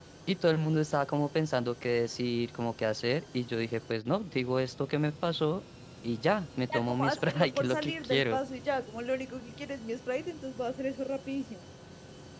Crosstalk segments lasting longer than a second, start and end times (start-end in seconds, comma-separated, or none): 6.7-8.4